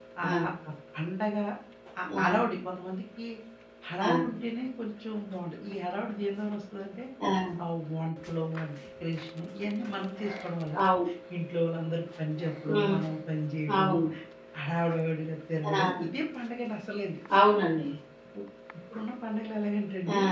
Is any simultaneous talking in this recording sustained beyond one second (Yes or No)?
No